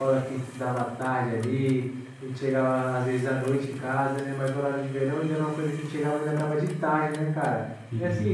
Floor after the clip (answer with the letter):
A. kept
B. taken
A